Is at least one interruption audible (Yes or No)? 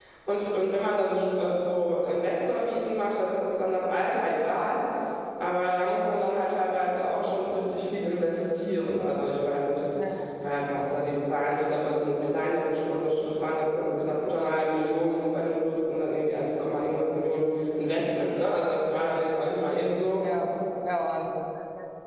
No